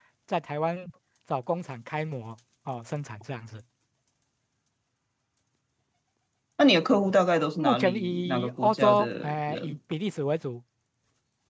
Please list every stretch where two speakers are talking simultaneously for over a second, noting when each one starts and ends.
7.6-9.8

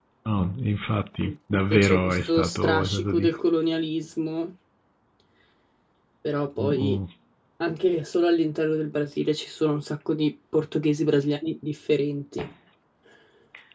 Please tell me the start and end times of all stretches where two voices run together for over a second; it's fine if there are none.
1.7-3.3

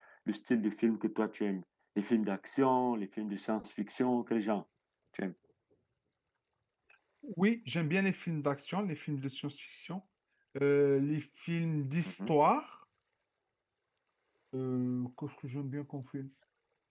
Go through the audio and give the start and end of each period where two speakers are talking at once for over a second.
none

